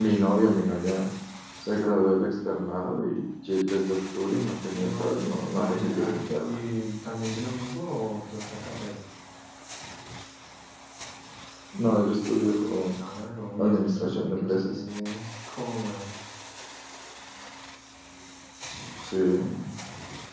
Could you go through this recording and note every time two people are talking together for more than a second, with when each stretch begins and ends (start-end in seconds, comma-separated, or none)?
4.7-6.6, 13.6-14.8